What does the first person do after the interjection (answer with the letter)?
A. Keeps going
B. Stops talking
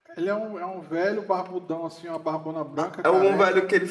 B